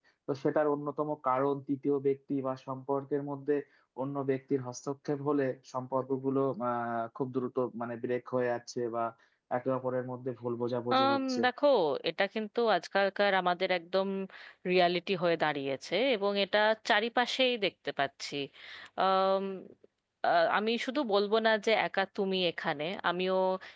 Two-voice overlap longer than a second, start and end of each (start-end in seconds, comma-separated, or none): none